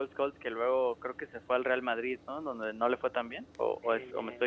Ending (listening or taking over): taking over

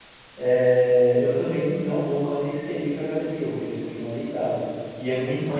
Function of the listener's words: taking over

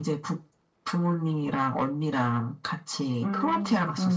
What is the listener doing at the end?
taking over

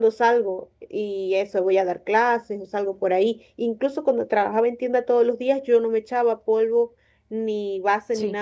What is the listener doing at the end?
listening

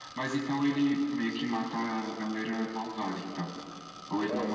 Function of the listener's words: taking over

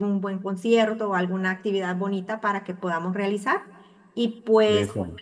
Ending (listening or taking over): listening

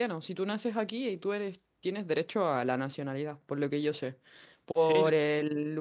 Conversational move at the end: listening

